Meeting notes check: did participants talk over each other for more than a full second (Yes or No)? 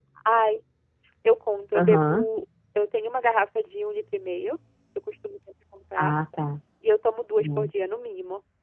No